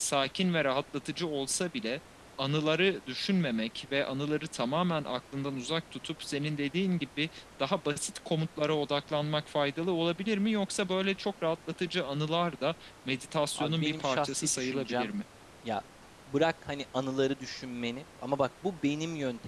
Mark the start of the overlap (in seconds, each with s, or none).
13.6 s